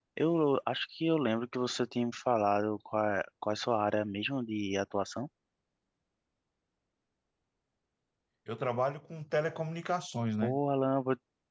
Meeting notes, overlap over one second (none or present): none